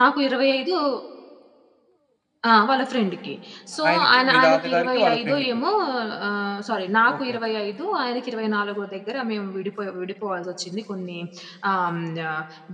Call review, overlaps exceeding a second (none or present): present